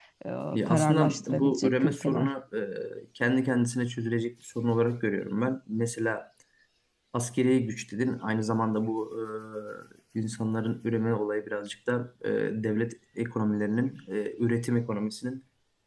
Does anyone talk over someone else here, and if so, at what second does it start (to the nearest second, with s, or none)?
1 s